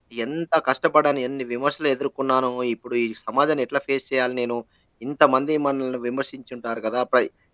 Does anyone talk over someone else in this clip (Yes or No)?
No